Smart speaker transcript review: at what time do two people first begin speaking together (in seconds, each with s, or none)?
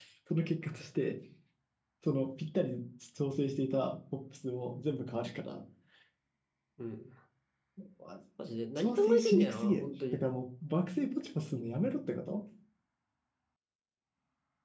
8.8 s